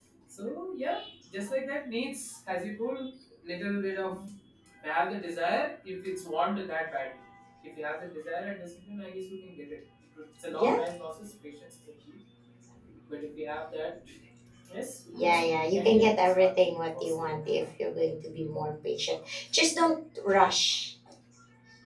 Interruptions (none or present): present